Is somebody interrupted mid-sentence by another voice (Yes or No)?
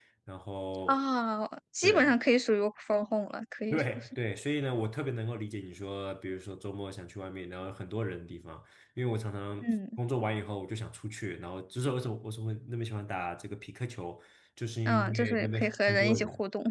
Yes